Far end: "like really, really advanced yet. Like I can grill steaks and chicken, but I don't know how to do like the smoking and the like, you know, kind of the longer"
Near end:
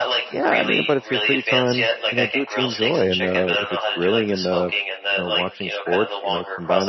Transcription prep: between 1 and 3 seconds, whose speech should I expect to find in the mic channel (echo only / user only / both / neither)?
both